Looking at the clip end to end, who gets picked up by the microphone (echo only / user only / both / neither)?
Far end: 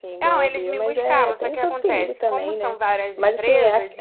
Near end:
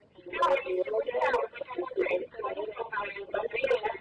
echo only